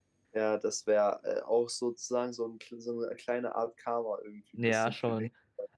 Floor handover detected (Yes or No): Yes